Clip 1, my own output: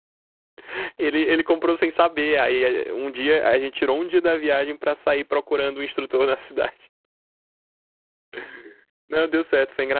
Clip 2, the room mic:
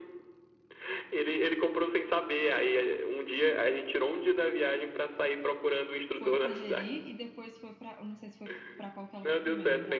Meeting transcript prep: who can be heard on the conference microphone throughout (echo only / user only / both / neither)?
both